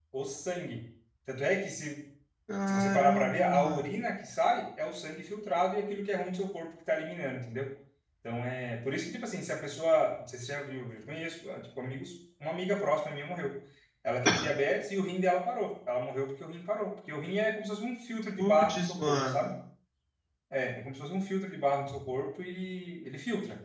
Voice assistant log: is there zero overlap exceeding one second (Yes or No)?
No